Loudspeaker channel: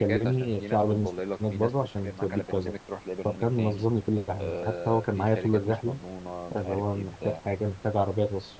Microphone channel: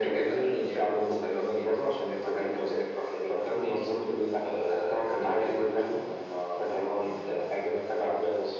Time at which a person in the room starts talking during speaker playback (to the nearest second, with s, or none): none